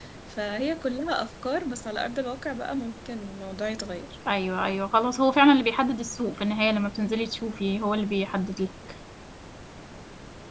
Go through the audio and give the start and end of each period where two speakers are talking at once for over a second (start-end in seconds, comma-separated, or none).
none